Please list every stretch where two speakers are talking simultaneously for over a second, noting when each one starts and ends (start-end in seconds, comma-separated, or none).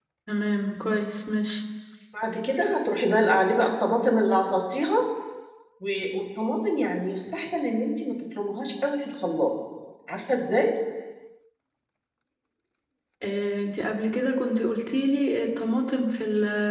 none